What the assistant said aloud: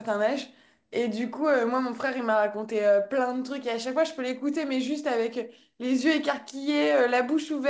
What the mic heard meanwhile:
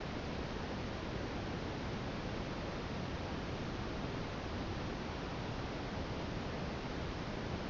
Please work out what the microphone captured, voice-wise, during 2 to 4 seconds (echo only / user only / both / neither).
neither